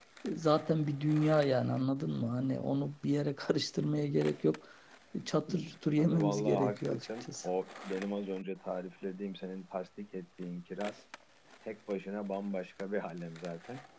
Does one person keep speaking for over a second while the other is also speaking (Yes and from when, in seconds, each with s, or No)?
Yes, from 6.0 s